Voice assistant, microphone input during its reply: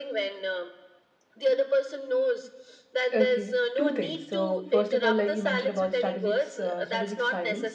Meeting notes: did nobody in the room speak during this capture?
No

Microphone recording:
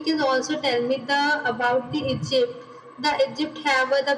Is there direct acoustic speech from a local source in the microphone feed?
No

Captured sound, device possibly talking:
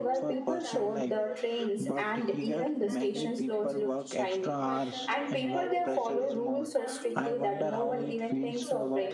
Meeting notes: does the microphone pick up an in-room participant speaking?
Yes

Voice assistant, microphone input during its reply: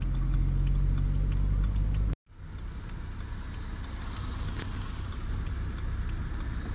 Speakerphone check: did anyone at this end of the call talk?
No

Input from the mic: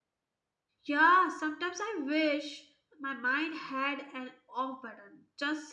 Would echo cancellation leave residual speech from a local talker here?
Yes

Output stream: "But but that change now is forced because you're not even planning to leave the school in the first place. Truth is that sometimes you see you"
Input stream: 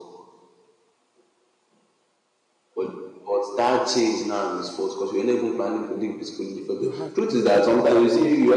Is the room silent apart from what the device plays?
No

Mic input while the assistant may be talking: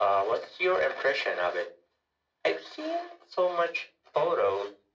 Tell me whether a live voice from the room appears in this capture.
No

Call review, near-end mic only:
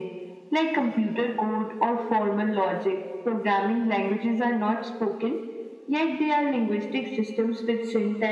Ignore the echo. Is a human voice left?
No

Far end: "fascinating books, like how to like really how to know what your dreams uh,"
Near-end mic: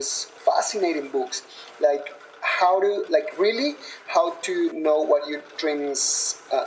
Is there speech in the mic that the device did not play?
No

